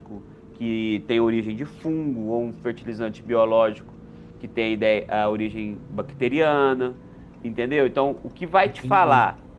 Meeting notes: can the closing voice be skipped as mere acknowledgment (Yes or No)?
Yes